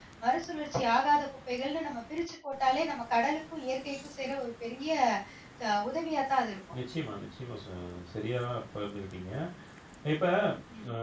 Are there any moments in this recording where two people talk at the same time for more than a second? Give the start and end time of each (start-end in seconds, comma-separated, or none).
none